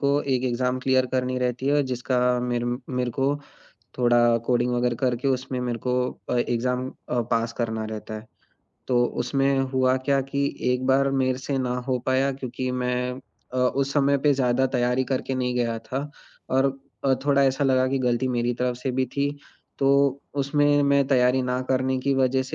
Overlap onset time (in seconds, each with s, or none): none